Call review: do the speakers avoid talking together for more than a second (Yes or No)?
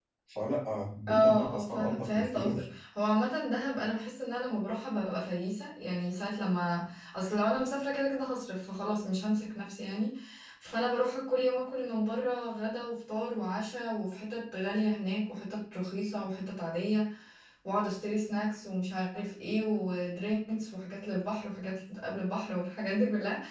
No